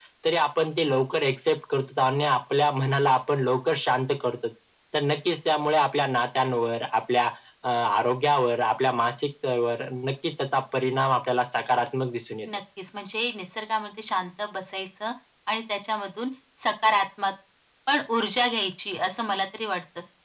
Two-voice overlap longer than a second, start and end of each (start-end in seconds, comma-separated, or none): none